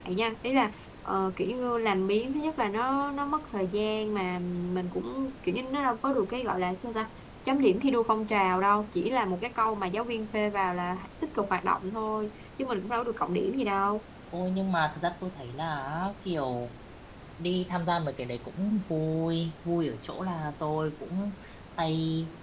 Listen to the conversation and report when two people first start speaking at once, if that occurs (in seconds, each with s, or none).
none